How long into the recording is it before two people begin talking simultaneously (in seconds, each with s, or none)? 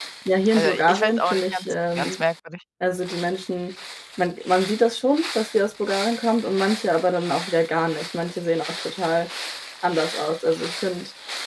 0.6 s